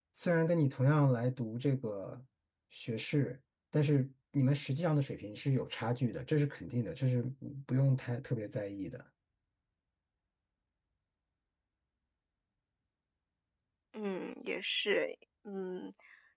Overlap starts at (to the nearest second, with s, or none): none